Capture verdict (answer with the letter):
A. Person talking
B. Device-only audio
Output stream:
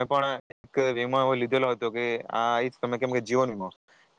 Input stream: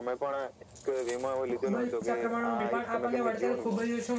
A